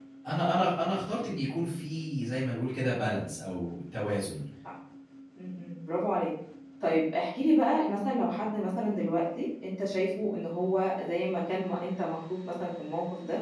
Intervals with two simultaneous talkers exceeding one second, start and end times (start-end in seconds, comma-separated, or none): none